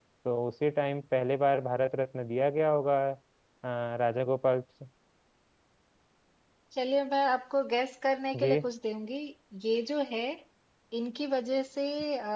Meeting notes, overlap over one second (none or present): none